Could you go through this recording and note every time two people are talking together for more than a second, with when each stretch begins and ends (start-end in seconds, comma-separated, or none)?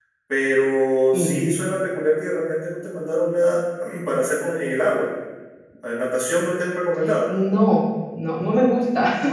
none